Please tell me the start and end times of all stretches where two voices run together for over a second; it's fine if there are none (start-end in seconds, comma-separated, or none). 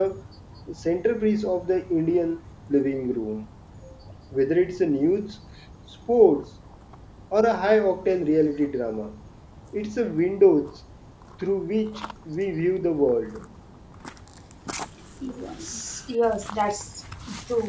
none